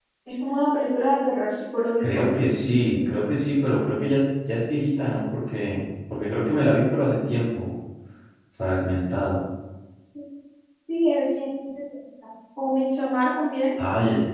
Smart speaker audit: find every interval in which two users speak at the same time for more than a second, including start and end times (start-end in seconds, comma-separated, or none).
none